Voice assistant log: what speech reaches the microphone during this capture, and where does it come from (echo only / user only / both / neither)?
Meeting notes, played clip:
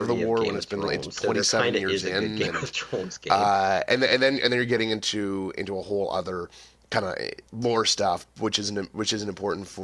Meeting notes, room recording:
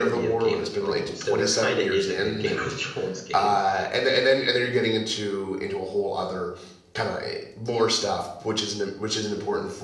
echo only